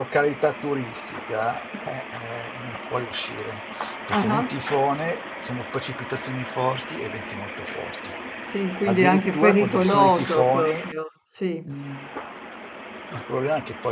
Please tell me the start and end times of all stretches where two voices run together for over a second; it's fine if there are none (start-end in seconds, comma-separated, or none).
8.8-10.8